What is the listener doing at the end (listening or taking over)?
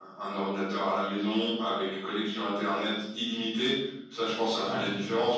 listening